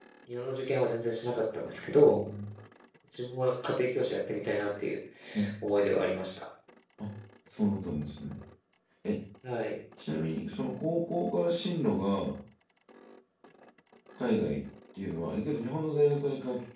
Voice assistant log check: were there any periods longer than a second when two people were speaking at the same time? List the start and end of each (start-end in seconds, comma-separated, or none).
none